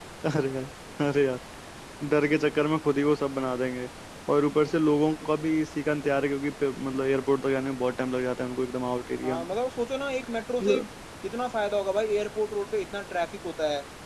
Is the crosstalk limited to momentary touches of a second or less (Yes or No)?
Yes